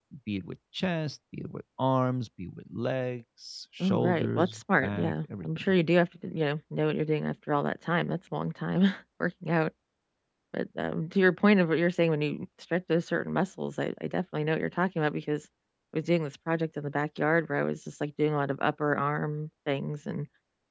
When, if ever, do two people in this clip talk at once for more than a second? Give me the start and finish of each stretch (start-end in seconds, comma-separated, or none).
3.8-5.7